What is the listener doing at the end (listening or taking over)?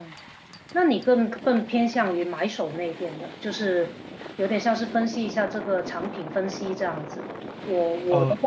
listening